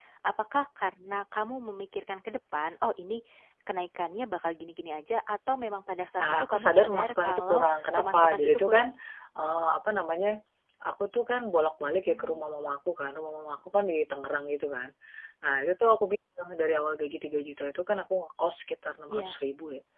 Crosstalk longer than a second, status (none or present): present